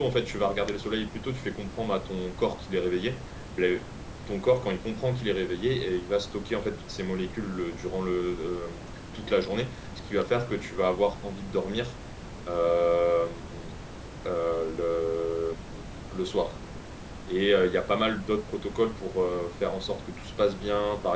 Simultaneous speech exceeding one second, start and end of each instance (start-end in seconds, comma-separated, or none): none